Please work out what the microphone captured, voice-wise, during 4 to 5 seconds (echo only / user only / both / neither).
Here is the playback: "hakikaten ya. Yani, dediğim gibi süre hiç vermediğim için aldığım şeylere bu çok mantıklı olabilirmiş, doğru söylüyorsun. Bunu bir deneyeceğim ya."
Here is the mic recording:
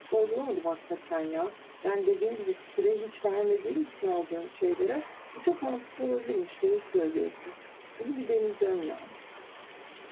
echo only